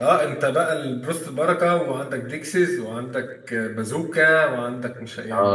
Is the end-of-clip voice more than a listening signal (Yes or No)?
Yes